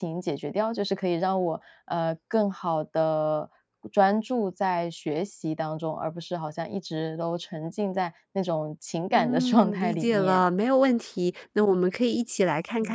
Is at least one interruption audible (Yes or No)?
Yes